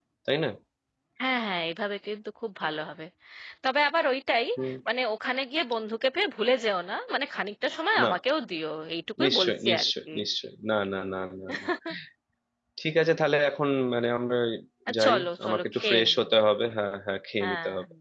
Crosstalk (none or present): present